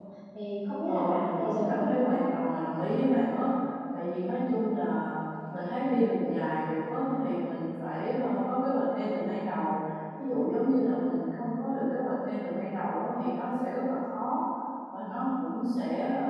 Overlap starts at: 0.9 s

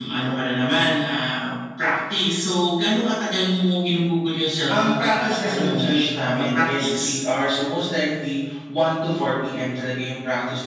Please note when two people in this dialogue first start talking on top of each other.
4.7 s

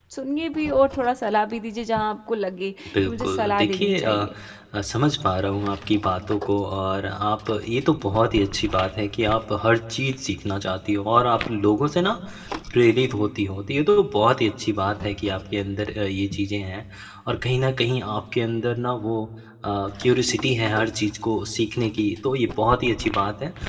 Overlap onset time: 2.8 s

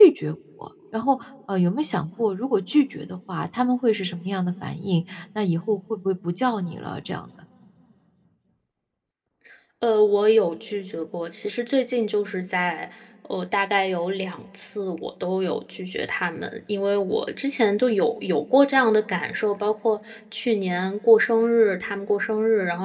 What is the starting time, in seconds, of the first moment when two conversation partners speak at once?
none

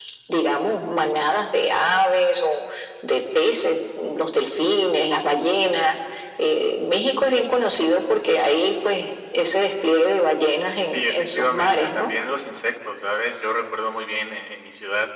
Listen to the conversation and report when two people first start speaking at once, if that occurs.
10.9 s

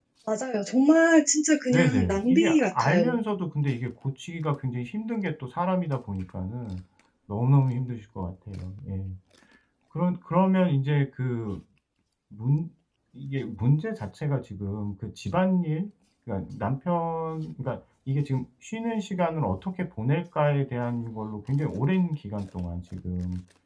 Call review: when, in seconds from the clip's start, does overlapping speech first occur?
1.7 s

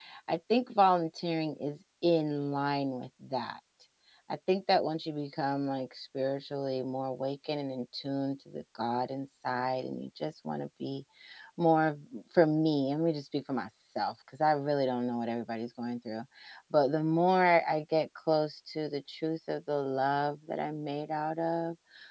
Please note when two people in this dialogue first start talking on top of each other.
none

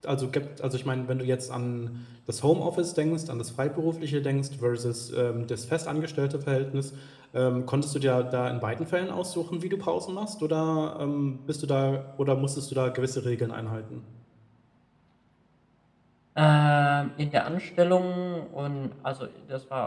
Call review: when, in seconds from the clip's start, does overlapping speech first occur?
none

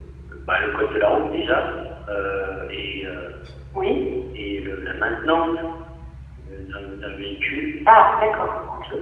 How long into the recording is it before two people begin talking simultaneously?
none

